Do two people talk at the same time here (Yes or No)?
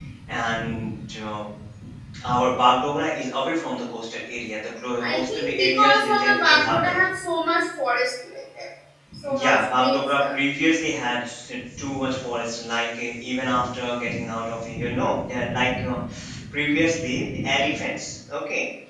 Yes